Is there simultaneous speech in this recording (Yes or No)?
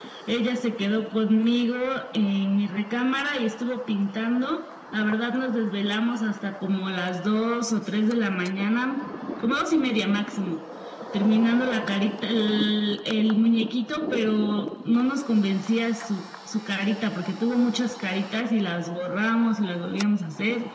No